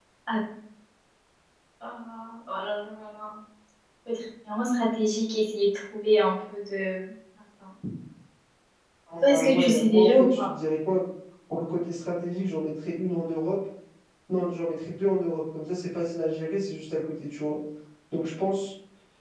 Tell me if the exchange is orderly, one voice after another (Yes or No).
No